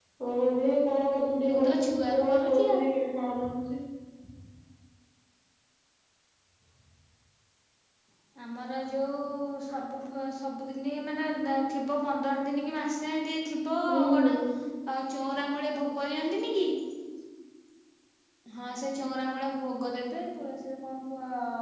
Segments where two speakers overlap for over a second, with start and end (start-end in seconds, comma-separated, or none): 1.5-2.8